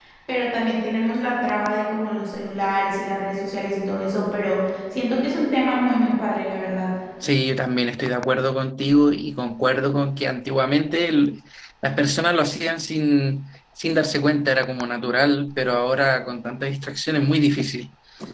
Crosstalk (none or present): none